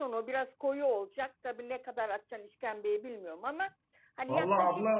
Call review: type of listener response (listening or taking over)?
taking over